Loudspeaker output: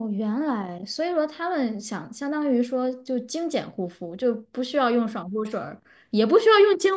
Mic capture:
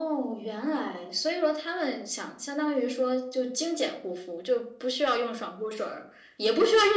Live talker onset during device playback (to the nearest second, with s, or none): none